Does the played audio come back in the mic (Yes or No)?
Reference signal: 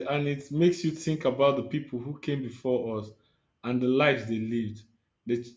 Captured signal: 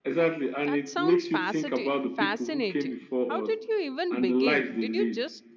Yes